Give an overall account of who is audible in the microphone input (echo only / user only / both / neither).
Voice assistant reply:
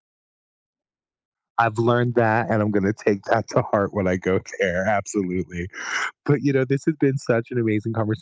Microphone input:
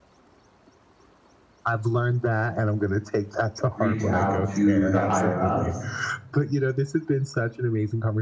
both